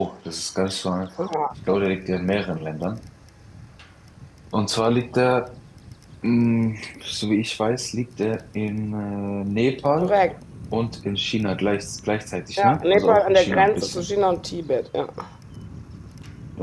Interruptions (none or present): present